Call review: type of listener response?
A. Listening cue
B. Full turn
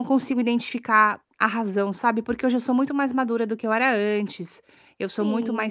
B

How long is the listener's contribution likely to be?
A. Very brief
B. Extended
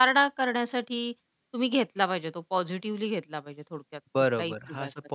B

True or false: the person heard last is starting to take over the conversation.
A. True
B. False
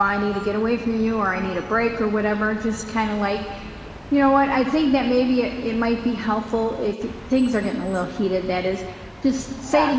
B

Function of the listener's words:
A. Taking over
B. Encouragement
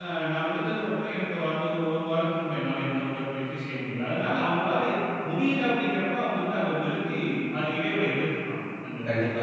A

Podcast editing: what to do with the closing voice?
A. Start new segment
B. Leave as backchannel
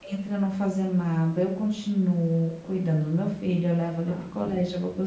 B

